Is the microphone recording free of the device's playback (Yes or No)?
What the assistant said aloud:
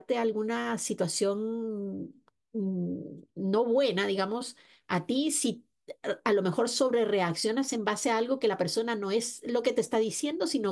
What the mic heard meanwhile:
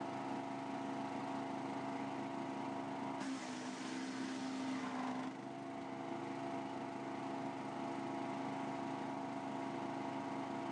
Yes